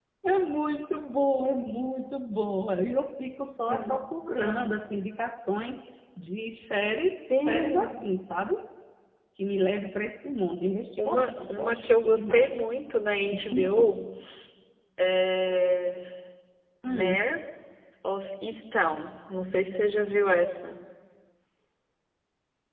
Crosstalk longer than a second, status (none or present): present